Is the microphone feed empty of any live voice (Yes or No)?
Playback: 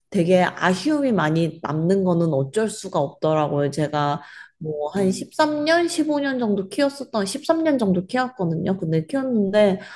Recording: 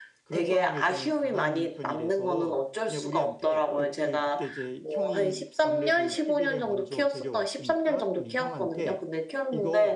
No